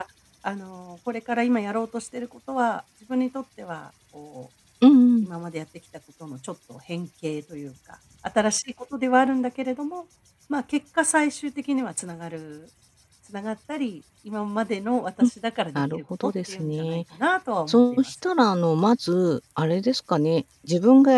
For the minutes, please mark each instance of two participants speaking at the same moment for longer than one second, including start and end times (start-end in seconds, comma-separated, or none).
15.8-17.0